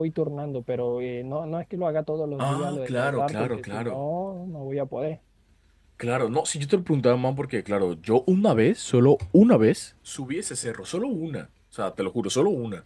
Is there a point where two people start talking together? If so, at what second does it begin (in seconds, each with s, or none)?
2.4 s